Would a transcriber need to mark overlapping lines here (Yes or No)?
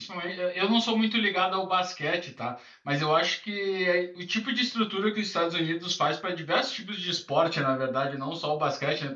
No